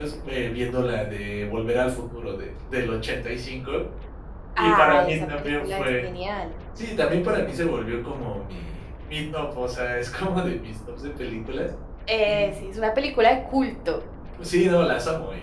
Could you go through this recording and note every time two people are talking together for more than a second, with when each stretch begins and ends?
4.6-6.0

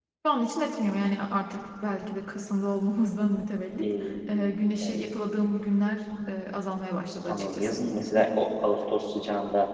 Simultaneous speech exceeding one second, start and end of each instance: none

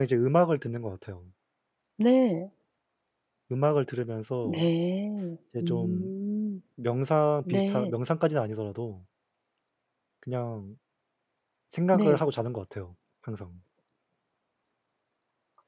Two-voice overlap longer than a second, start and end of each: none

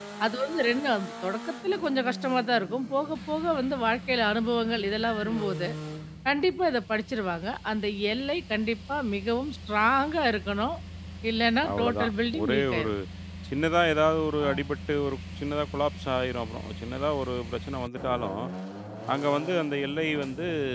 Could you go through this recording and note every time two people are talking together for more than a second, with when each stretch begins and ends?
11.7-12.9

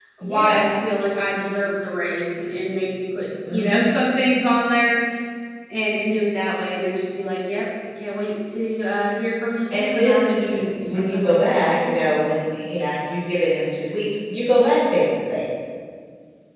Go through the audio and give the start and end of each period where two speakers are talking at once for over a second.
9.7-11.6

